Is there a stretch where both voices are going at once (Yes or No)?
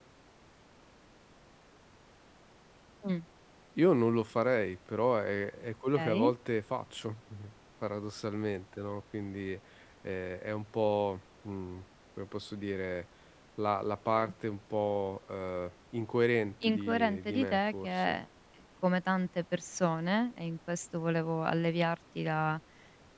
Yes